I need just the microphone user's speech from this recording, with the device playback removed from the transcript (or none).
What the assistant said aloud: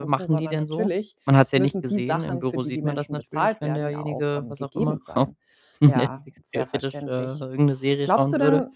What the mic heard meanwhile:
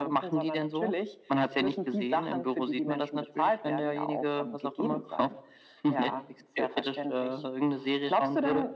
none